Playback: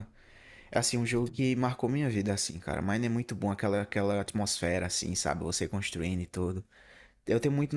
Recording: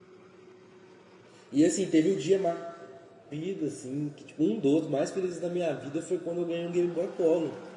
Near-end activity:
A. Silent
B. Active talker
B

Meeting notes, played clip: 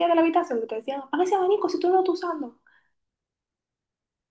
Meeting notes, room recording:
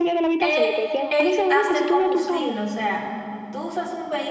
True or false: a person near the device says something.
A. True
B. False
A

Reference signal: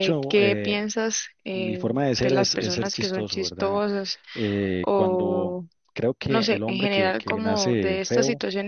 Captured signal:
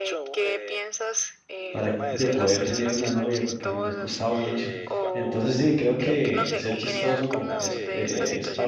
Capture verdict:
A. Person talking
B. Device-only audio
A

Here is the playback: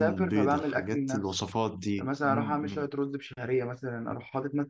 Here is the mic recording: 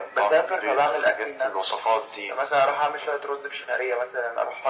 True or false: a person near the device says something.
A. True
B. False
B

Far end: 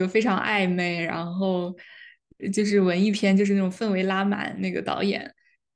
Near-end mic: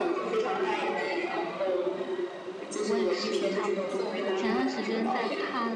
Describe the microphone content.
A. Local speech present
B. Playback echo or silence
A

